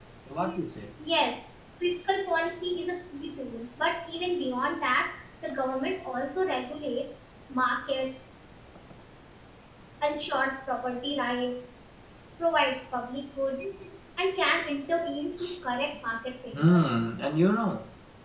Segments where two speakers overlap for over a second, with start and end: none

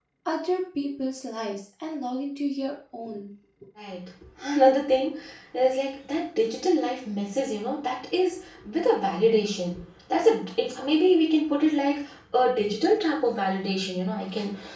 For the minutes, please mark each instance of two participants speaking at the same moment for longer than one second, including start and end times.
none

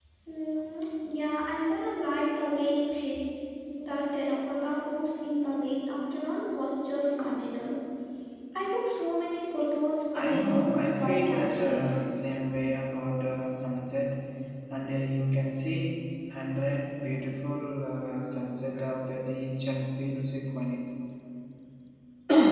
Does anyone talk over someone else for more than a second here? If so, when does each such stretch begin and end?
10.1-11.9

